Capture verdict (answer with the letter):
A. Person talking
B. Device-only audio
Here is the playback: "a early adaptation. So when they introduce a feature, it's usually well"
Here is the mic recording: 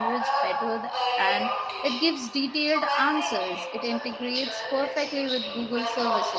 A